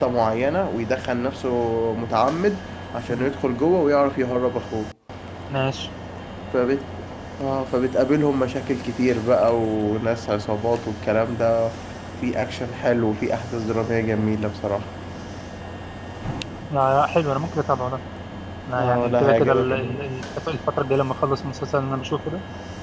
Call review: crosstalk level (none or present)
present